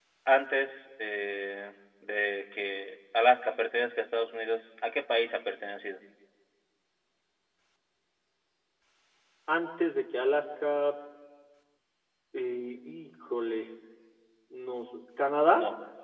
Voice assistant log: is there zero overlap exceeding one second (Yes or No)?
Yes